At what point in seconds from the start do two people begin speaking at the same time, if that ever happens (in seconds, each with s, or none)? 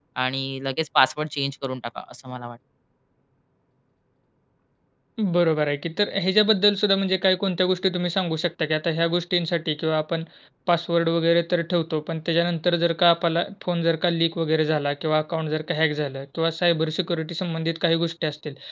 none